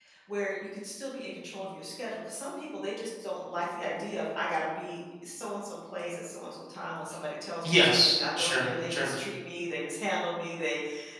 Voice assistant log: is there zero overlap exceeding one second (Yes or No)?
No